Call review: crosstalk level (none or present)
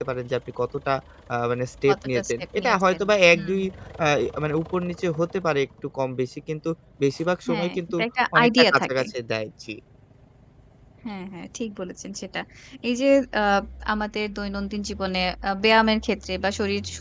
present